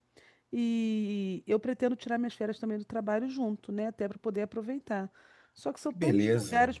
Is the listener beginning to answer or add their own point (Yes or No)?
No